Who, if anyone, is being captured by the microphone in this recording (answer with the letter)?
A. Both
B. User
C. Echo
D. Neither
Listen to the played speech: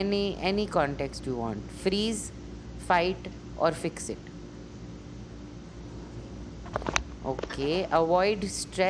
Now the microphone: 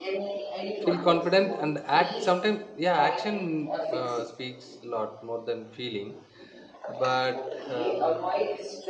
A